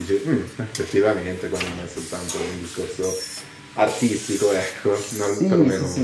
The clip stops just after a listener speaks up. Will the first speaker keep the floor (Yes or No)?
No